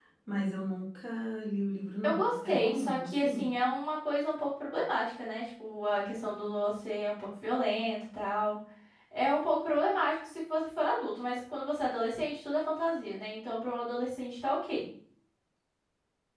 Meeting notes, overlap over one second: present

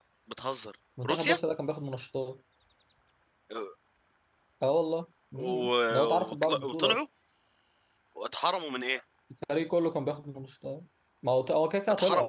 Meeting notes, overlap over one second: present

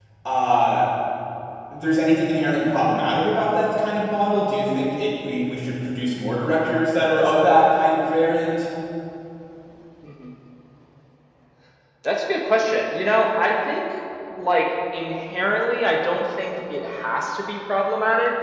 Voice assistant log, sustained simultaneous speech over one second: none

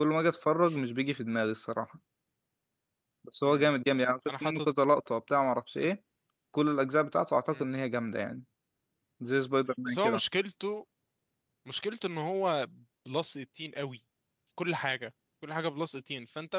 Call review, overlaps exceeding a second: none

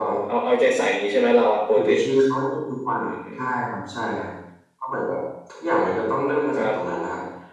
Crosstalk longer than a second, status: none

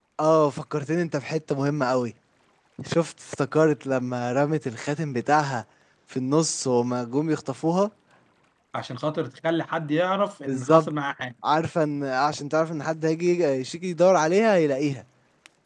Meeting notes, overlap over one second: none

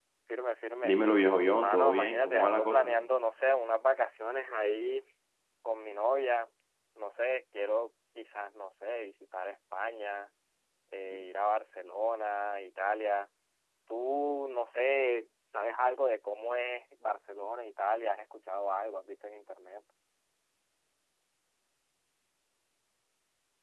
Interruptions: present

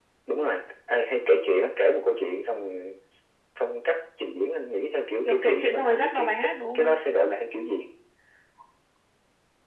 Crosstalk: present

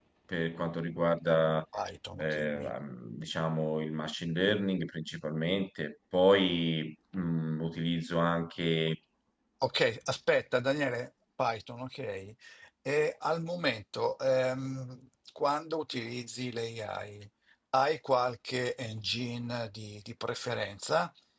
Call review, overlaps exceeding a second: none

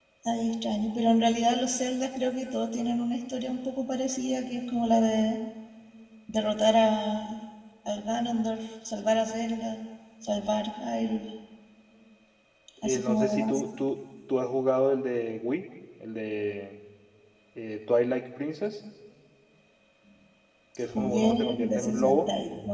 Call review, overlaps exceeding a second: present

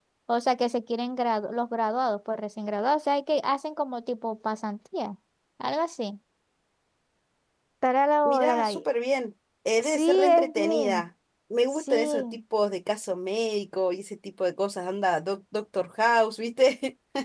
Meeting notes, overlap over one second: present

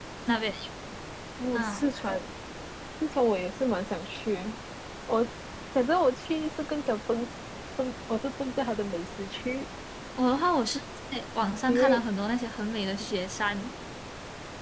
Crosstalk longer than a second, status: none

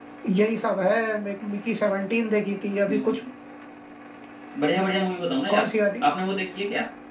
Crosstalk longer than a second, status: none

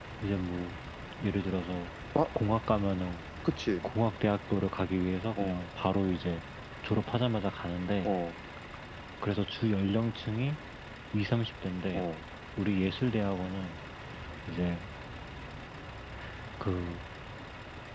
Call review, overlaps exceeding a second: none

